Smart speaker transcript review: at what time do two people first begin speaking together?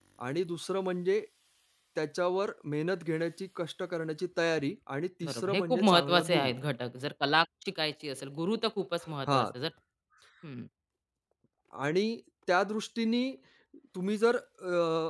5.2 s

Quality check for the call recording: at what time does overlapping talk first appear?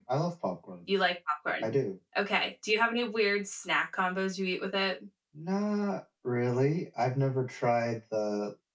none

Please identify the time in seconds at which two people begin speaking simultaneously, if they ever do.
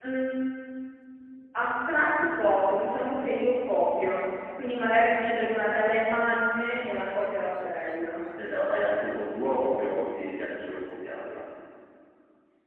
none

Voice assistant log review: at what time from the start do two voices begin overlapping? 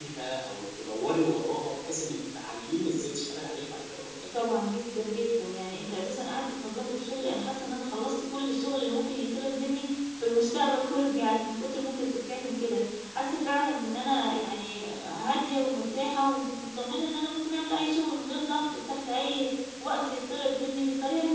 none

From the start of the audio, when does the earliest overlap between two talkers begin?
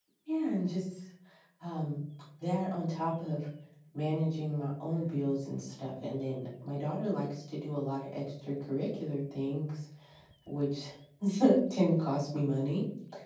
none

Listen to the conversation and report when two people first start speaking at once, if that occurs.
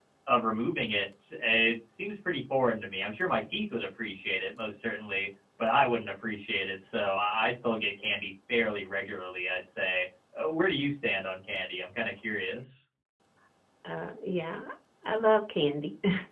none

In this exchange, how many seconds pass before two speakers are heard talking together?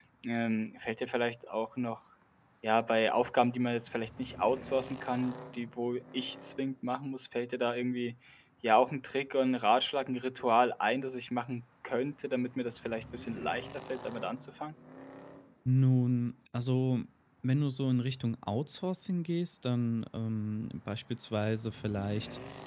none

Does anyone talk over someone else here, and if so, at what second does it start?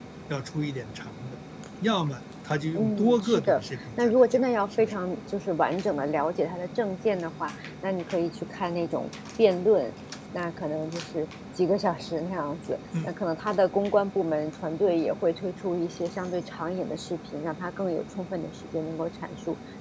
2.8 s

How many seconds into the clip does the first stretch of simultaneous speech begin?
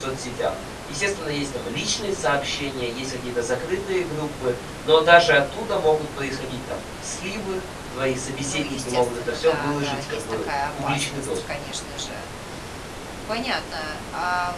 8.4 s

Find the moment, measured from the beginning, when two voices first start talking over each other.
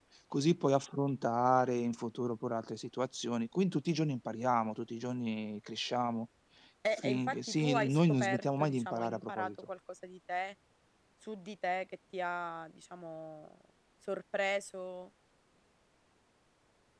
6.9 s

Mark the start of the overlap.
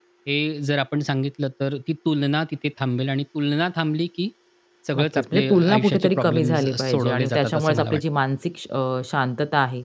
4.9 s

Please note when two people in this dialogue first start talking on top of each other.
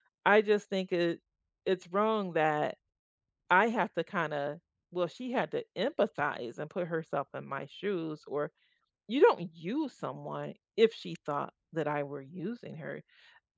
none

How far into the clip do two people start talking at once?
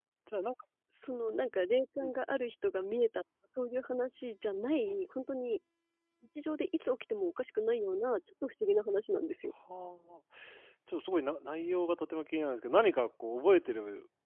none

